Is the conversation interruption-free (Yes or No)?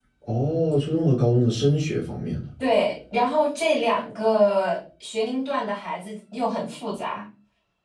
Yes